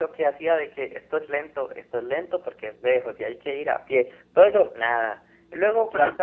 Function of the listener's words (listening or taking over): listening